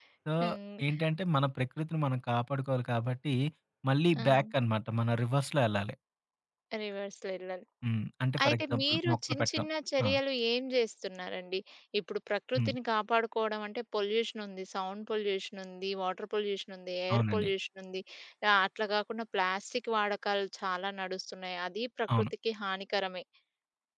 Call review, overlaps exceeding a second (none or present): present